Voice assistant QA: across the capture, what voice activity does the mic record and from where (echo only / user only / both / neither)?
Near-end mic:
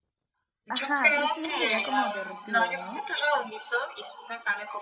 both